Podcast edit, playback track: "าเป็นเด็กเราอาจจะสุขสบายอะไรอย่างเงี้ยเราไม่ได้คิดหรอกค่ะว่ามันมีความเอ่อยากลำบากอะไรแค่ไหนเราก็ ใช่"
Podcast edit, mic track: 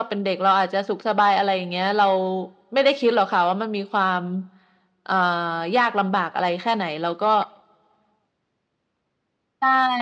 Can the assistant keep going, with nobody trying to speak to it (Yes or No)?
Yes